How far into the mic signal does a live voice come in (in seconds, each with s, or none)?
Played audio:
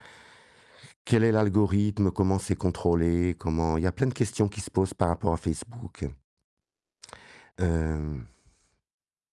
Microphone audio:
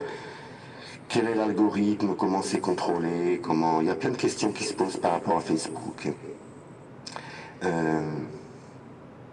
none